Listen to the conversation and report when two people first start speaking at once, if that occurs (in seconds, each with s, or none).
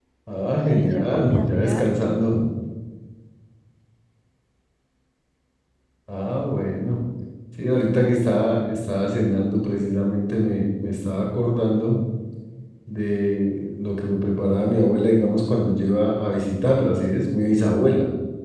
0.7 s